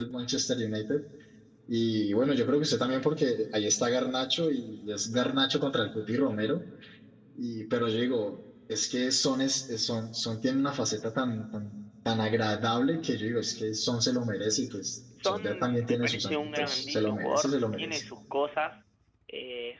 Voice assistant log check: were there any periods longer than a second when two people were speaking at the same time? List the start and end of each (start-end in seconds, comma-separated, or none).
15.2-18.0